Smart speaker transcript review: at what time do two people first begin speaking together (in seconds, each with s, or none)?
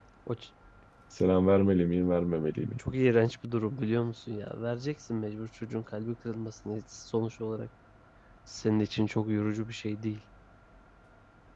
none